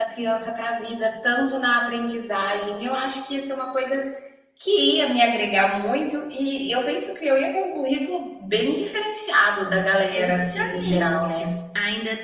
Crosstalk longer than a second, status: present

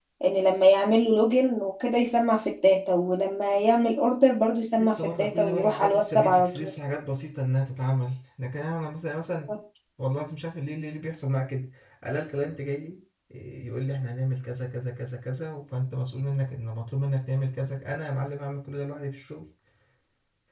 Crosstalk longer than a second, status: present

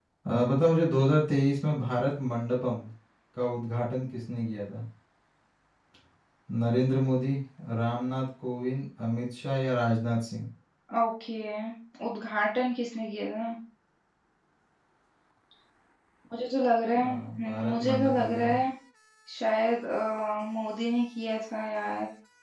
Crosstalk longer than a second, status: present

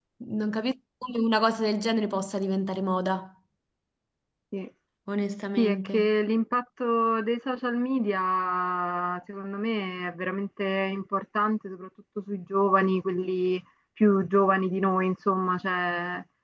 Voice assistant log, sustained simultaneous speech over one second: none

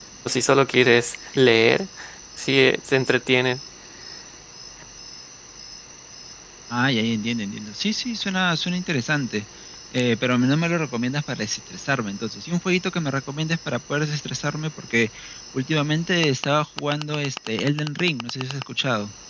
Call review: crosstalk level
none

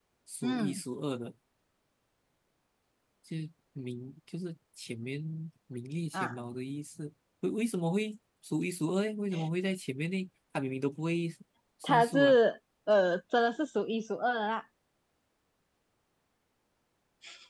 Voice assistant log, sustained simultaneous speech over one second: none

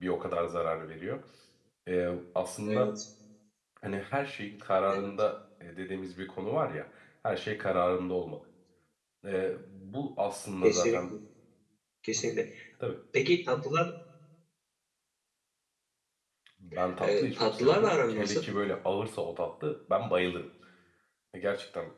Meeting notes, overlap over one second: present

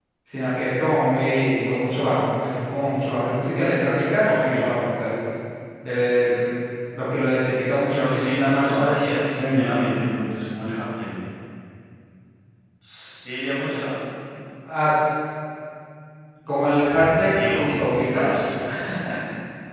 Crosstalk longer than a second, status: present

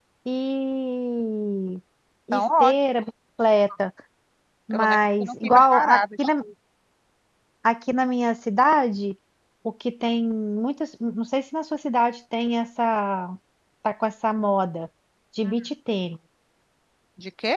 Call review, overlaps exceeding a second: present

